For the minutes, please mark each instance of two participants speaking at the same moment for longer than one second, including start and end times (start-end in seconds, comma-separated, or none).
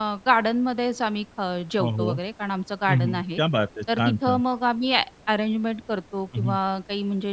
none